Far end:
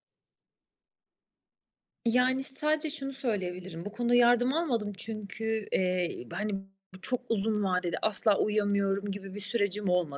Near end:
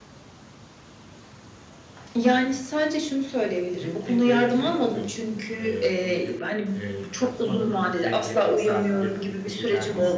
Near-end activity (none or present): present